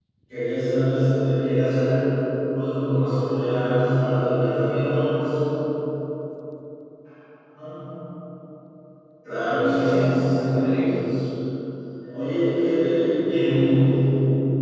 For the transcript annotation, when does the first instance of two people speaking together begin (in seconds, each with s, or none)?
9.4 s